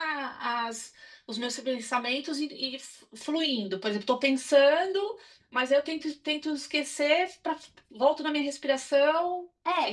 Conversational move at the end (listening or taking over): taking over